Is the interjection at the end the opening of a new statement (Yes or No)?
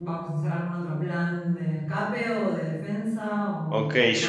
Yes